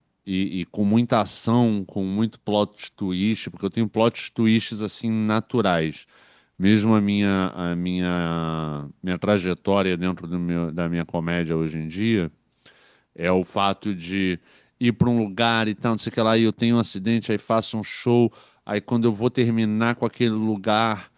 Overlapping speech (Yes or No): No